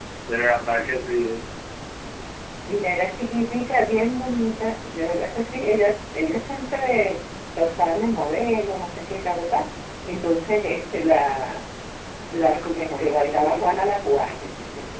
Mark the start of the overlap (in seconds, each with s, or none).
12.4 s